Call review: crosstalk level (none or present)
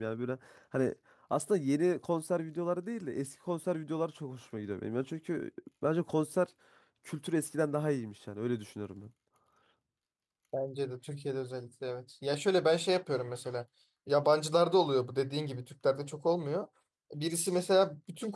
none